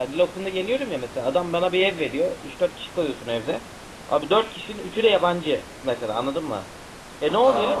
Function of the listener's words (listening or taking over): listening